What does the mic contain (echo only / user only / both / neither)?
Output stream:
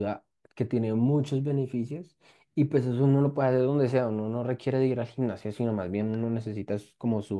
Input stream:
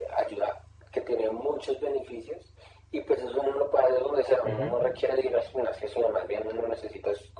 both